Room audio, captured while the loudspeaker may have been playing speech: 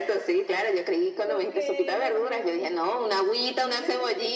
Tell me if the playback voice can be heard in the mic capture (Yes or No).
Yes